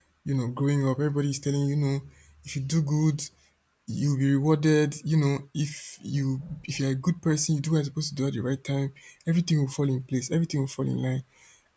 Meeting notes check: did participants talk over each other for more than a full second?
No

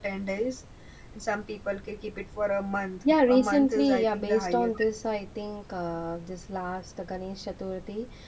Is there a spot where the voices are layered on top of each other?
Yes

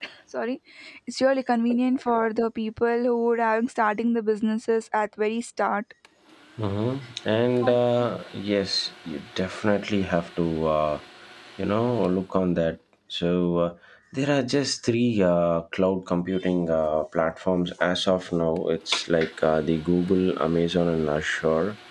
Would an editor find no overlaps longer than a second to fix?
Yes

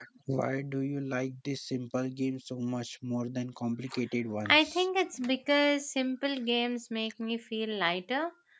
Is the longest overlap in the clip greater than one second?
No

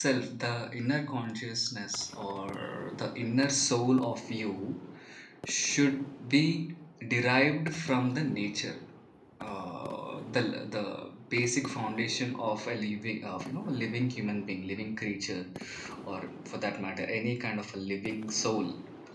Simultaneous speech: No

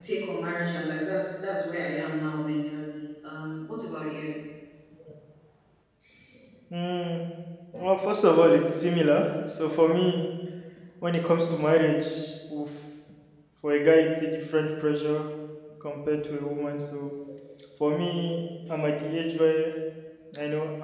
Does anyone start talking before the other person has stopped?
No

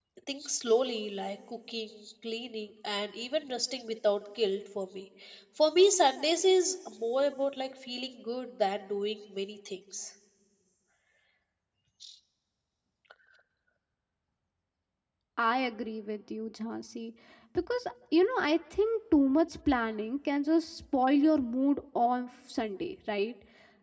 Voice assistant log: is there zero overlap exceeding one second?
Yes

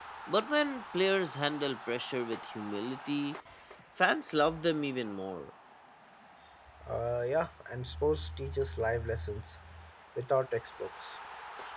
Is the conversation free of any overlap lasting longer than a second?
Yes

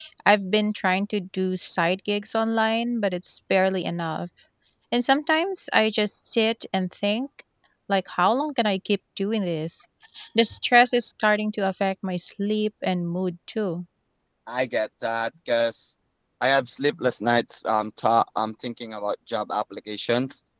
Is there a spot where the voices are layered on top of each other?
No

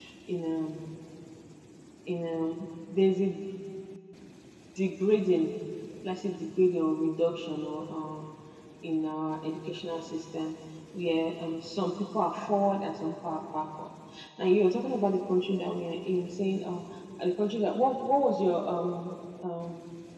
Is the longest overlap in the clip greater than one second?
No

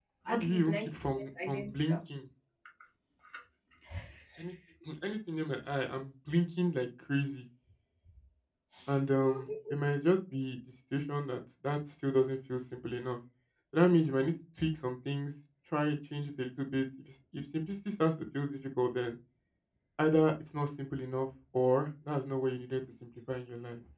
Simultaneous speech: Yes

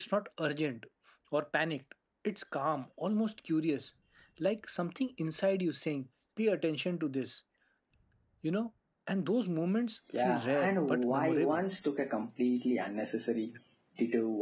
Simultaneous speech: Yes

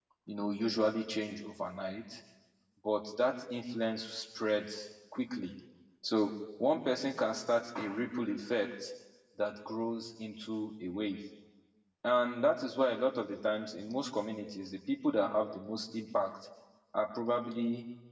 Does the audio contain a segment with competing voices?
No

